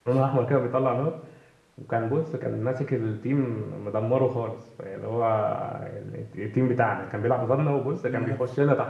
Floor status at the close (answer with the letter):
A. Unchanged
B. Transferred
A